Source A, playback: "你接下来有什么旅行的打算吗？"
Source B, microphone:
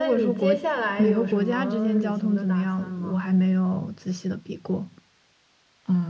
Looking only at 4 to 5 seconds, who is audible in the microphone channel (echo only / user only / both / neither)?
user only